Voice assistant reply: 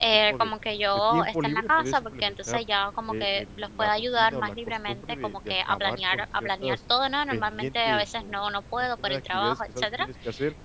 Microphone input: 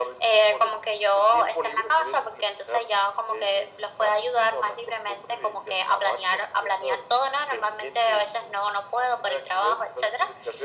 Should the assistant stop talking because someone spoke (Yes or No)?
No